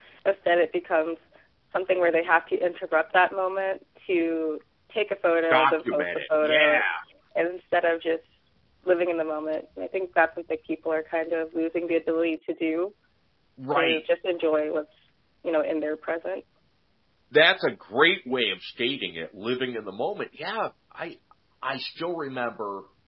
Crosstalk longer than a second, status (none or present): present